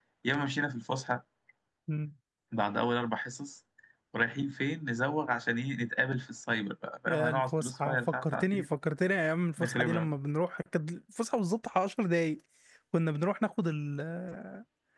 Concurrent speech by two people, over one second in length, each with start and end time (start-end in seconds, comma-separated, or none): 7.1-8.7